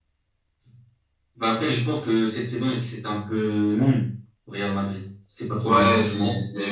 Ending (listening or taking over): taking over